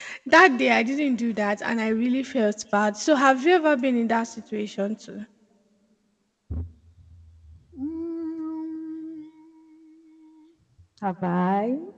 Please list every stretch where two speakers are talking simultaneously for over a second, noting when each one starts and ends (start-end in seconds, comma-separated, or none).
none